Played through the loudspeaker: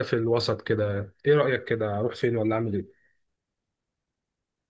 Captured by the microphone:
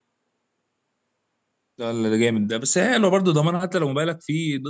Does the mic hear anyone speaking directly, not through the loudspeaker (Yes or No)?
Yes